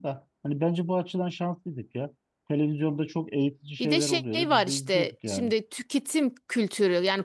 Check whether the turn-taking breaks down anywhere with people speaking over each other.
Yes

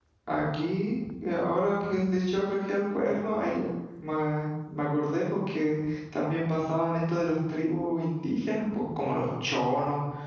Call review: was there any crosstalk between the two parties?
No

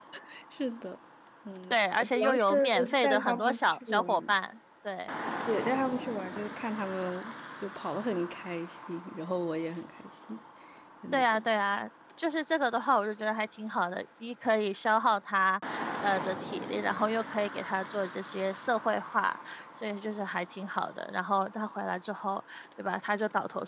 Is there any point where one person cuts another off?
Yes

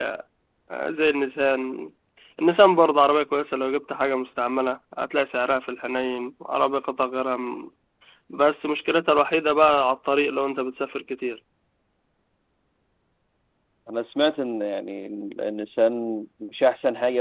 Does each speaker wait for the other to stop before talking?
Yes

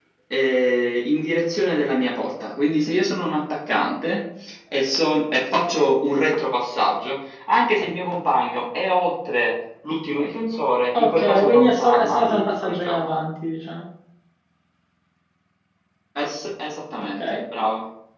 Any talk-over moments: Yes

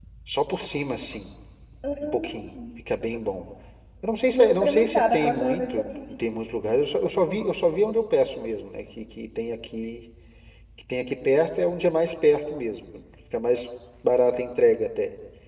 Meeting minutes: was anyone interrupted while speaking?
Yes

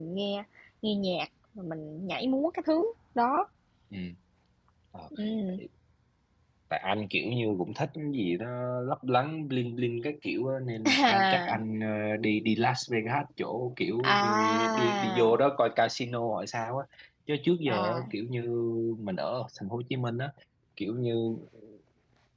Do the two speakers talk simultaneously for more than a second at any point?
Yes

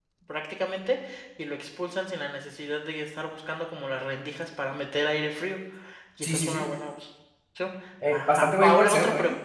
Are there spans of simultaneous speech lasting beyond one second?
Yes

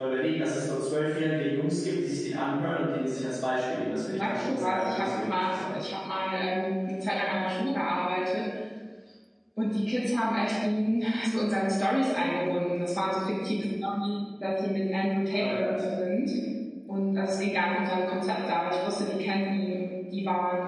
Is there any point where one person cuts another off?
Yes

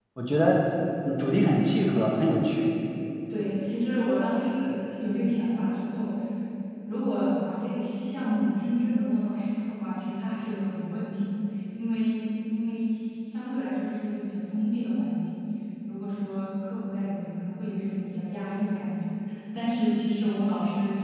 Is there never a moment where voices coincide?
Yes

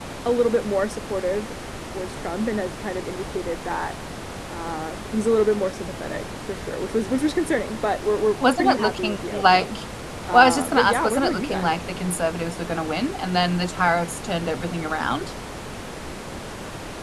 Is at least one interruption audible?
Yes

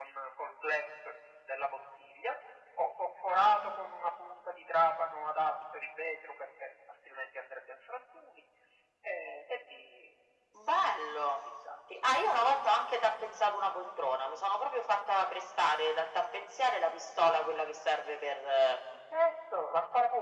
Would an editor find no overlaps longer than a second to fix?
Yes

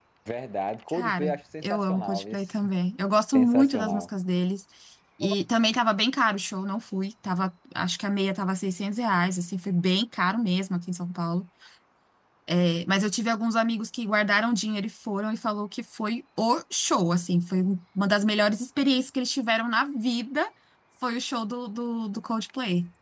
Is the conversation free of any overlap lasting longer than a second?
No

